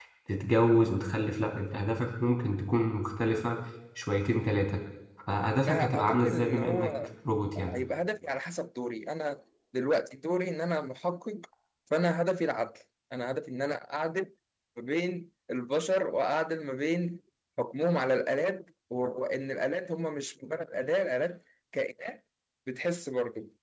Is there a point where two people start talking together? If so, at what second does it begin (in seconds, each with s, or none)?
5.7 s